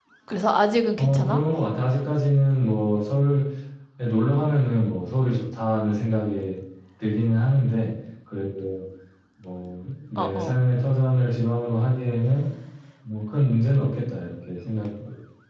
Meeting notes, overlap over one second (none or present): none